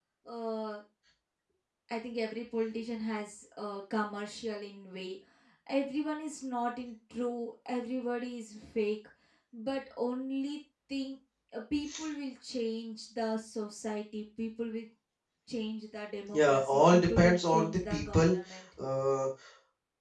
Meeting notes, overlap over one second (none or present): present